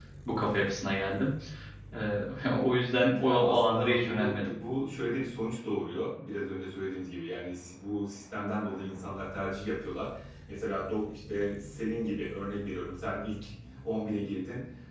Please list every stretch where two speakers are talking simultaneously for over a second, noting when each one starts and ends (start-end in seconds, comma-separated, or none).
3.2-4.5